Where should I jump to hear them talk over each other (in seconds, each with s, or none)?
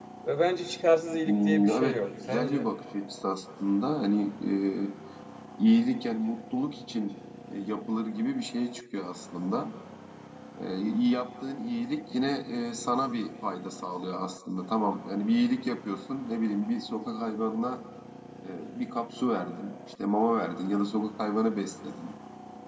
1.3 s